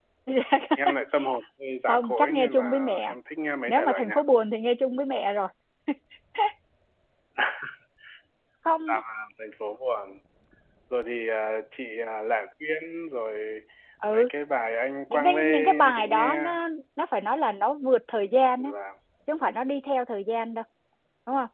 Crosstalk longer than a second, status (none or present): present